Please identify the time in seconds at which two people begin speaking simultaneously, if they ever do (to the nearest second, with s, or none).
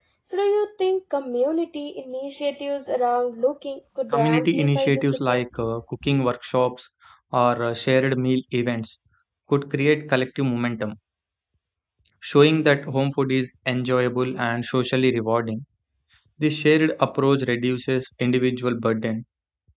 4 s